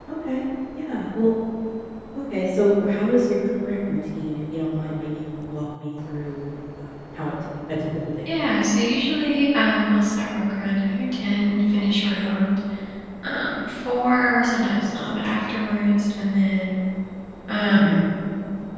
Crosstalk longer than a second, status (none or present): none